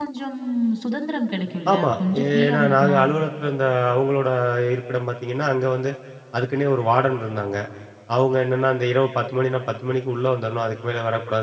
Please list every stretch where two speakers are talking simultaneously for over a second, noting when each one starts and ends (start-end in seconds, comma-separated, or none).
1.7-3.1